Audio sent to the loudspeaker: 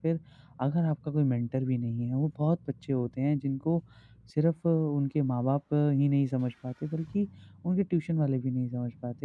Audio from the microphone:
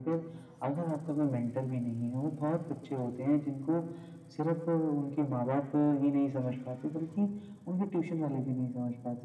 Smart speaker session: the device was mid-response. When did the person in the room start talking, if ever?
none

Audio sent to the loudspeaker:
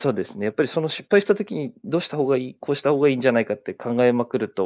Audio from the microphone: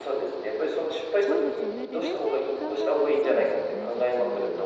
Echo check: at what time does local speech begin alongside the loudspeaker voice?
1.2 s

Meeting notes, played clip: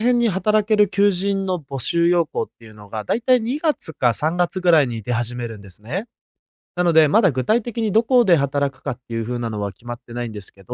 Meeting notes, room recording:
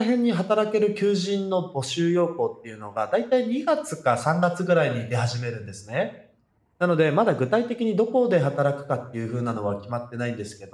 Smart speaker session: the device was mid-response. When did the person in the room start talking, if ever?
none

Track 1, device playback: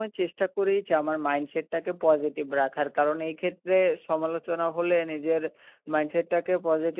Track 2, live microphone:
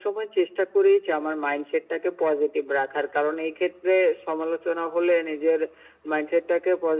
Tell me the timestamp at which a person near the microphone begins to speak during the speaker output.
none

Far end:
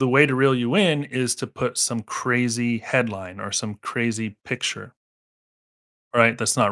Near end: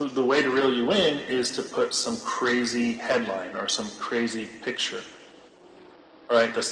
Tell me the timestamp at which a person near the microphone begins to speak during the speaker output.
none

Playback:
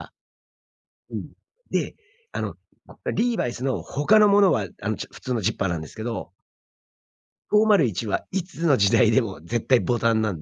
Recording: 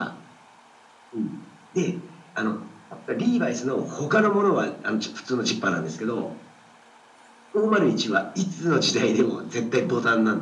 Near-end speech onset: none

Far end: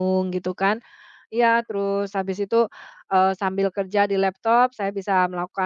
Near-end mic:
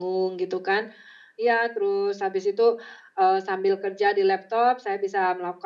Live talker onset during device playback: none

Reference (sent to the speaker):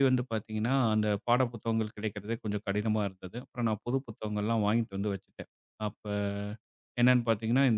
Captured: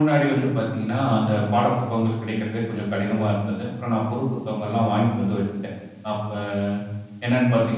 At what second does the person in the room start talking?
none

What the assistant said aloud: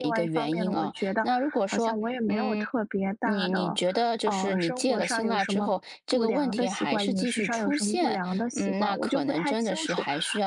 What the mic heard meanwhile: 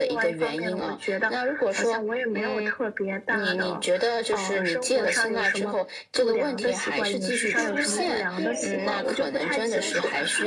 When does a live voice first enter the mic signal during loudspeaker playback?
7.5 s

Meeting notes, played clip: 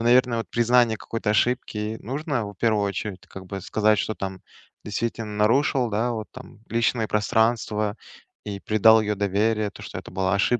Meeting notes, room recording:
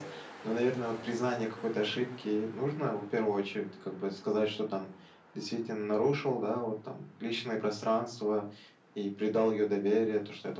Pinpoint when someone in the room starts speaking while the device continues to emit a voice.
none

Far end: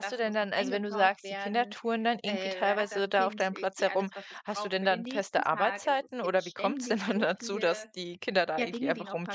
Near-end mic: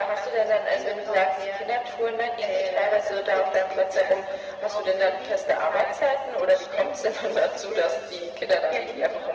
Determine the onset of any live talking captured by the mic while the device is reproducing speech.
none

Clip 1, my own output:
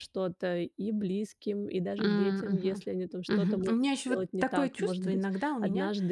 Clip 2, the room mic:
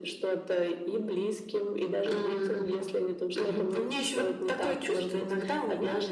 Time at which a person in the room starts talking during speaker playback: none

